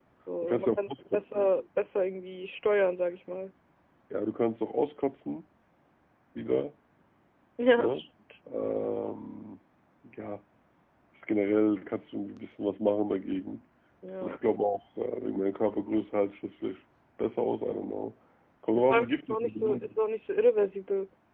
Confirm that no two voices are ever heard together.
No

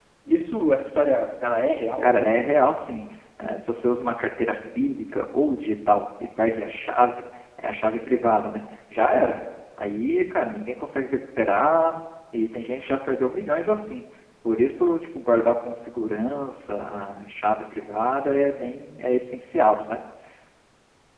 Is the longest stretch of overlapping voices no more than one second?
Yes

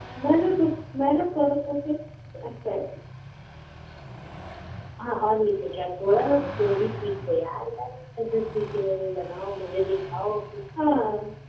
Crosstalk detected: No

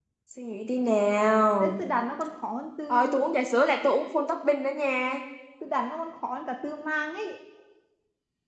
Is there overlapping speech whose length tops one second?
No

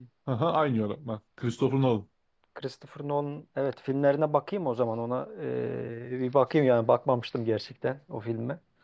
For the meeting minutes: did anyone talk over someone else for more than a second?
No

